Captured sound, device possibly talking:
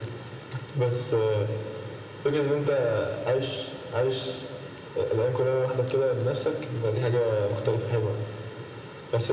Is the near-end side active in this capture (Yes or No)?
No